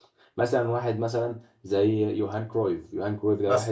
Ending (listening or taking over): listening